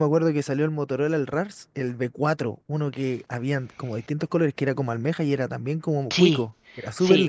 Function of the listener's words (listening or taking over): taking over